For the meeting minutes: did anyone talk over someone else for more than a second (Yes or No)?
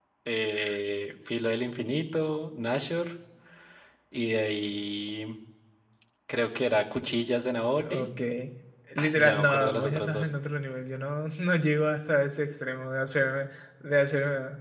Yes